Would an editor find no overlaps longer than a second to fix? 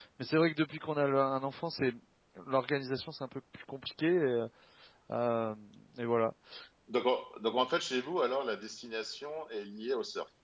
Yes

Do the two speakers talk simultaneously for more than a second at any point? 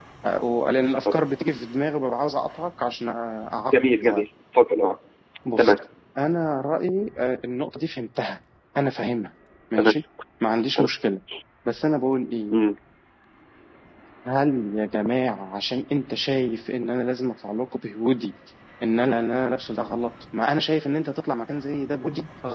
No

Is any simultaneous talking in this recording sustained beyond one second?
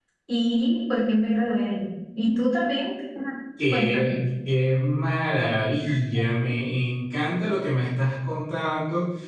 No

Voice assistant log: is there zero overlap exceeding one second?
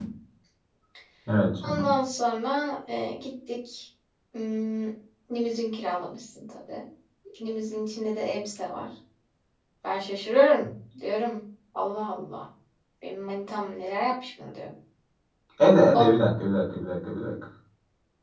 Yes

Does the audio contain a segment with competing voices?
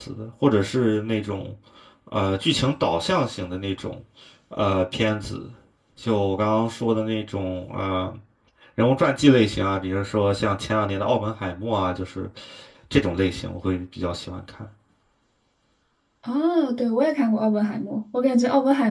No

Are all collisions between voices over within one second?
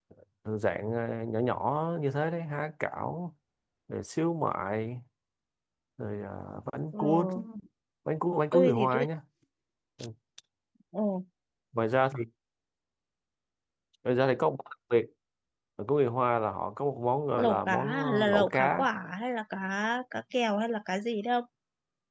No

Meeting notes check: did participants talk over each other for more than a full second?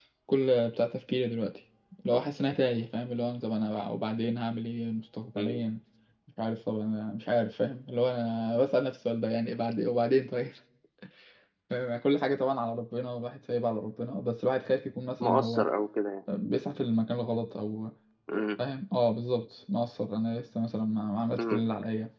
No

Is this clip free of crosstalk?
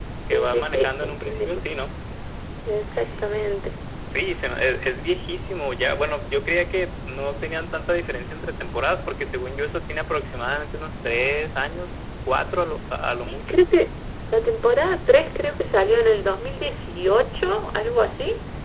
No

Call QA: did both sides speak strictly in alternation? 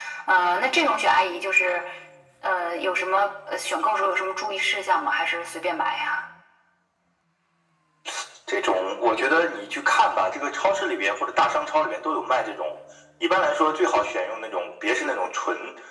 Yes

